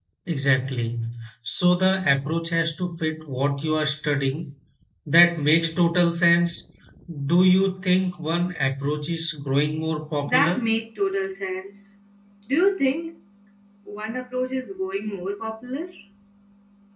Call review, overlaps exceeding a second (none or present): none